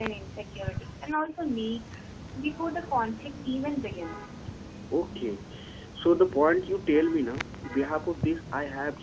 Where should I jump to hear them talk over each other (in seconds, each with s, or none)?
none